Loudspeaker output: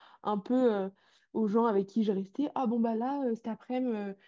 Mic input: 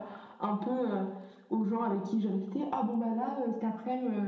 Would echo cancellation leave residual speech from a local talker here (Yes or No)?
No